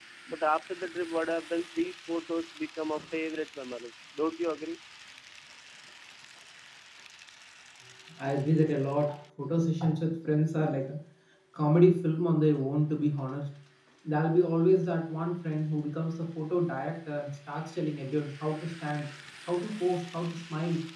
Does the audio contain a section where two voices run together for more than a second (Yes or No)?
No